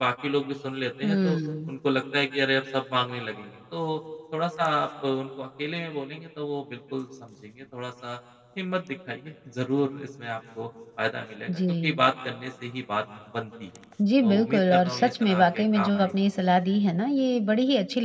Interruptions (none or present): present